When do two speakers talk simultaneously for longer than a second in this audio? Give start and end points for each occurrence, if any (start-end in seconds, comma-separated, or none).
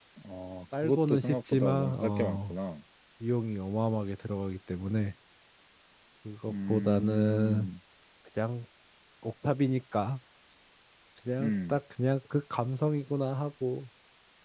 0.8-2.6, 6.5-7.7